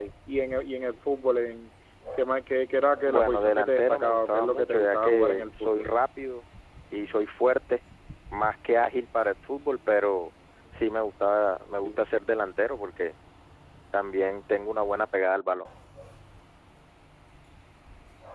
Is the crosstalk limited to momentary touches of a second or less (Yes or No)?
No